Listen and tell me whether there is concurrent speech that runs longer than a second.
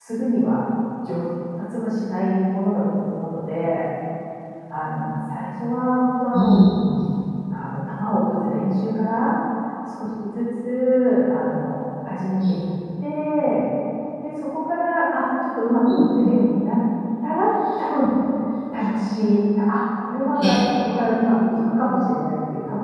No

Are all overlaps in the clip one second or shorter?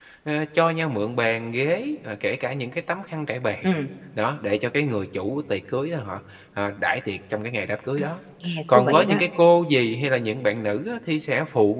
Yes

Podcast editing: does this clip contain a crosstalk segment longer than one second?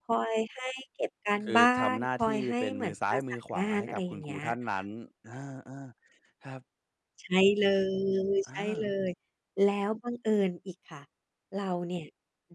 Yes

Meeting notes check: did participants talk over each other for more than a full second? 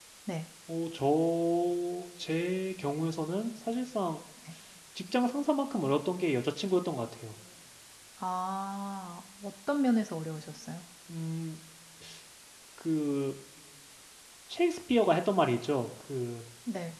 No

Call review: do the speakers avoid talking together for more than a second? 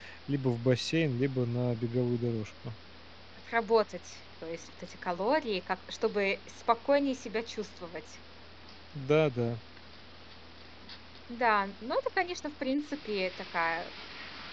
Yes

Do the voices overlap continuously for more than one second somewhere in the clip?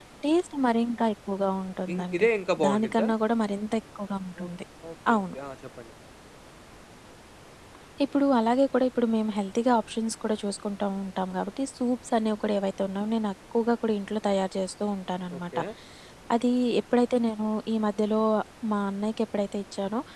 No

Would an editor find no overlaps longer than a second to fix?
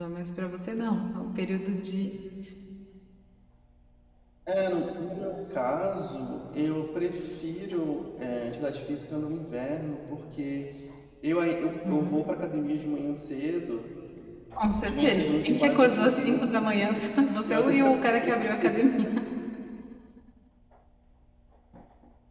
No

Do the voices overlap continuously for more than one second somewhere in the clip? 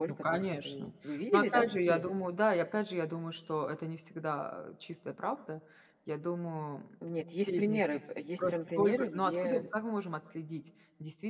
Yes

